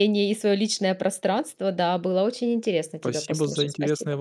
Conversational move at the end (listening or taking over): taking over